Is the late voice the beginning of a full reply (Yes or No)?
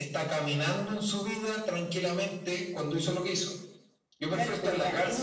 Yes